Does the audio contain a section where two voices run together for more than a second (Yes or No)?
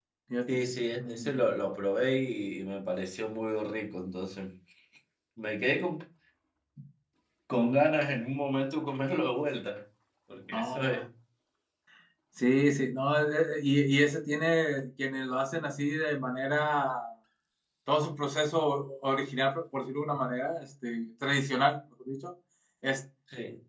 No